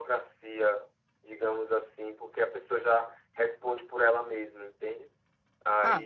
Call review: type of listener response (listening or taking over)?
taking over